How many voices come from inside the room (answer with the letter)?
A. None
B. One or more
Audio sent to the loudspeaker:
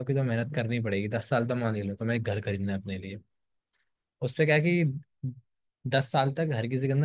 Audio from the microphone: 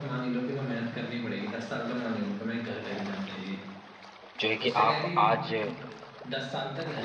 B